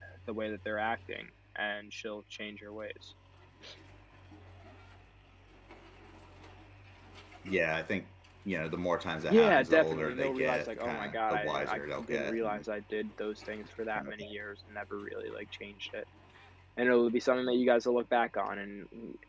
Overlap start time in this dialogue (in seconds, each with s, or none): 9.3 s